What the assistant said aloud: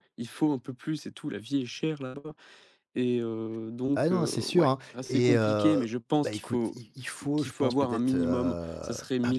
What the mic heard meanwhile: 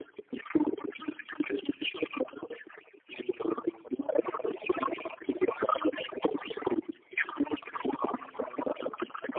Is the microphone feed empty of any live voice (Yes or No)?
Yes